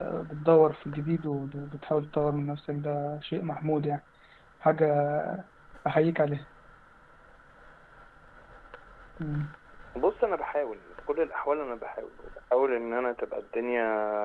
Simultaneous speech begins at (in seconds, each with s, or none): none